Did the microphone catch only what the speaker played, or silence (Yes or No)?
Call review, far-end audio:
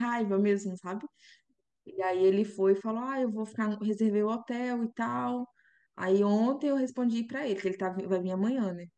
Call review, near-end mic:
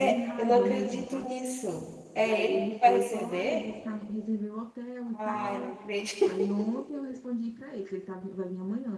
No